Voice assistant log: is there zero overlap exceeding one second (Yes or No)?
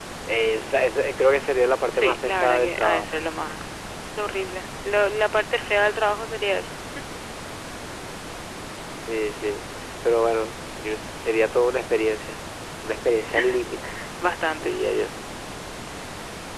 No